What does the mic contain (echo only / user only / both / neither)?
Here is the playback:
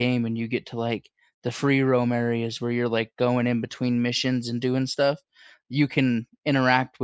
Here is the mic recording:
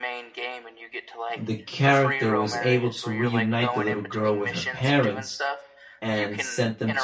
both